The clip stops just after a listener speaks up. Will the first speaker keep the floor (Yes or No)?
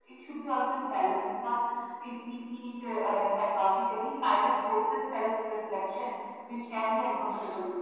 Yes